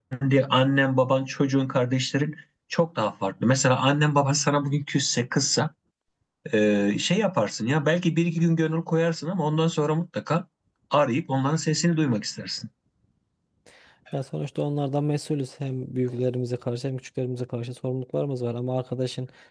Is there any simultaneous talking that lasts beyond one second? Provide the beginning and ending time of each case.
none

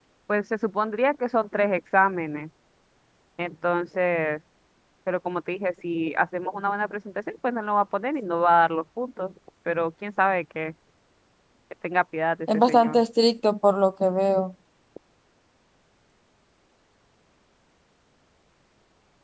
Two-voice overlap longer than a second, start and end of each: none

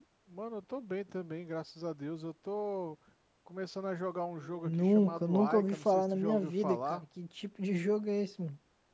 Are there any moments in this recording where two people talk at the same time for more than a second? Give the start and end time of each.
4.6-7.0

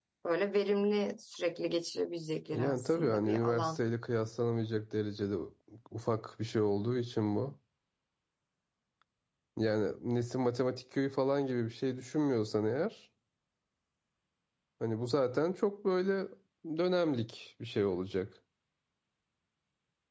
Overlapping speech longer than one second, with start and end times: 2.5-3.8

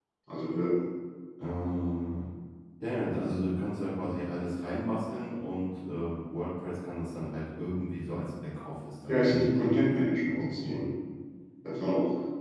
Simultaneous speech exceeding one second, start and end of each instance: 9.1-10.9

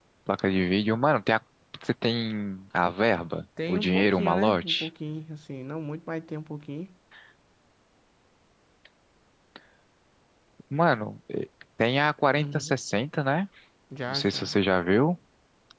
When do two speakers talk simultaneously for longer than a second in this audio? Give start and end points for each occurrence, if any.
3.7-4.9

